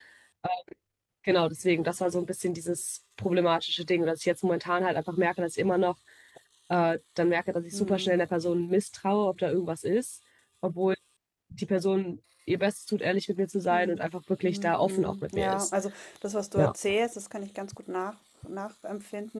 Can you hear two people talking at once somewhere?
Yes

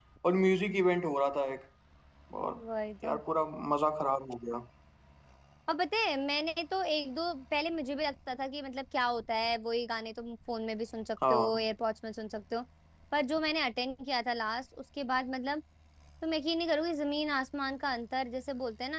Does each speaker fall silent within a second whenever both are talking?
Yes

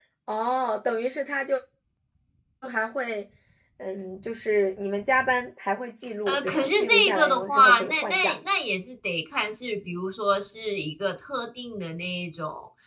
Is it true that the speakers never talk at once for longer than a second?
No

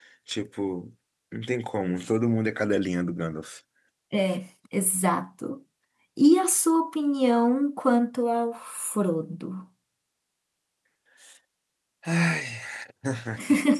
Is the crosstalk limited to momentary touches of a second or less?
Yes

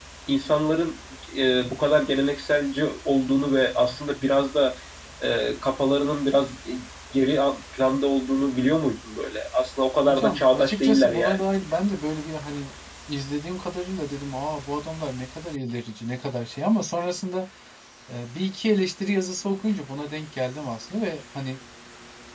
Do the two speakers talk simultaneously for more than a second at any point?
Yes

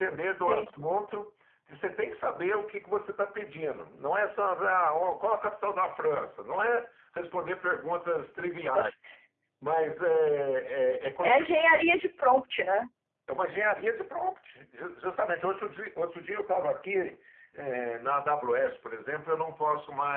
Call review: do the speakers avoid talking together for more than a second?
Yes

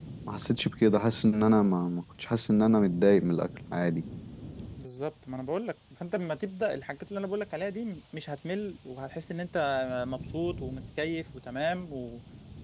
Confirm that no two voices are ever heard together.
Yes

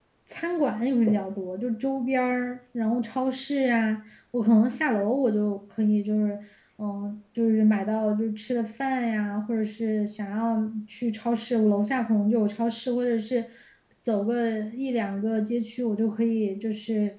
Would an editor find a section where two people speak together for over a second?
No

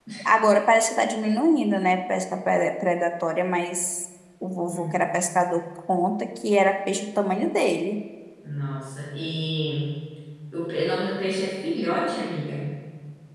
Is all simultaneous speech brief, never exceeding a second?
Yes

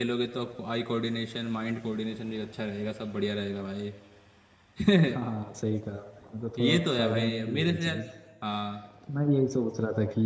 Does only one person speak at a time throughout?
No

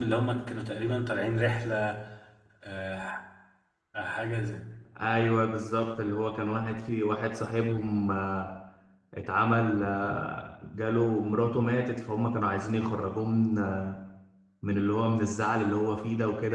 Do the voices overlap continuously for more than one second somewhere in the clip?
No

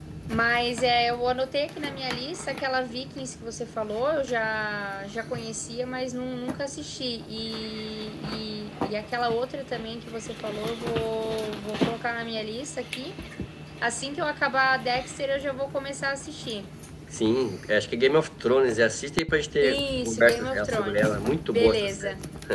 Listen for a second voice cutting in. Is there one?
Yes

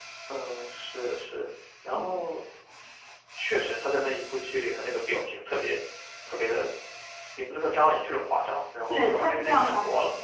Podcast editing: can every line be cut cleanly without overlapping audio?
No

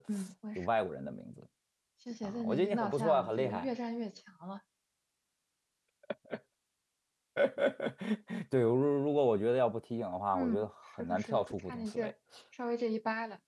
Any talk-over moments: Yes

